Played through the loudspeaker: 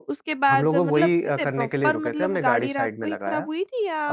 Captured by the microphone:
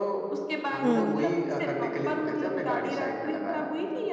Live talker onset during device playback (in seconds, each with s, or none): 0.8 s